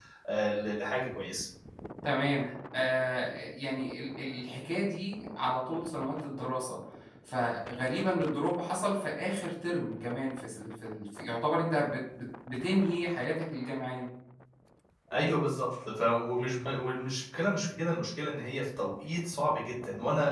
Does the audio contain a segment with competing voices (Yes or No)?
No